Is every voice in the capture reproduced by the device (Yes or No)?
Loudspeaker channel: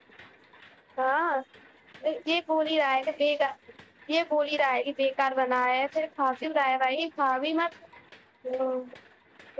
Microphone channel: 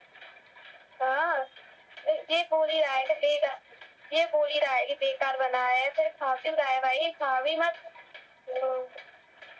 Yes